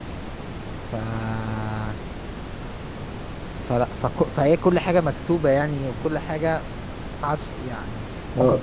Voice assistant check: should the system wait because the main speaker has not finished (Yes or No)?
No